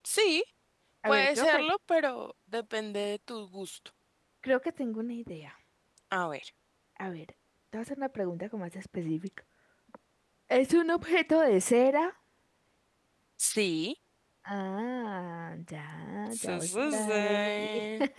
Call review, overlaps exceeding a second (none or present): present